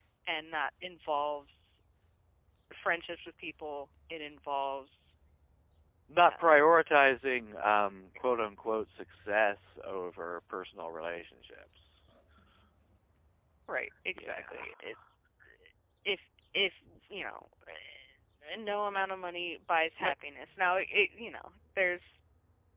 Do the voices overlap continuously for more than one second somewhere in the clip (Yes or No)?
No